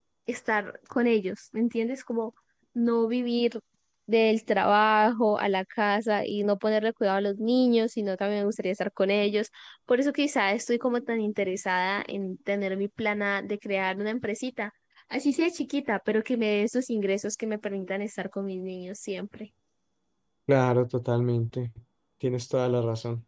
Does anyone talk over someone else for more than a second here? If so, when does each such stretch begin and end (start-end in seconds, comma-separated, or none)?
none